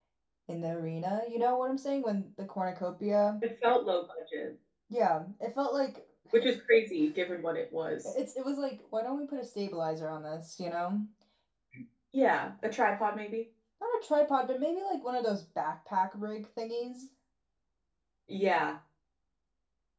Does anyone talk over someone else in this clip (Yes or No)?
No